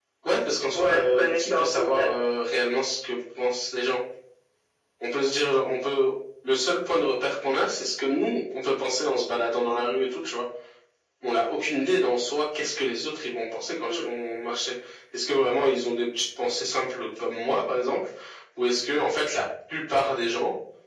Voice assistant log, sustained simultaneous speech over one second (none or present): present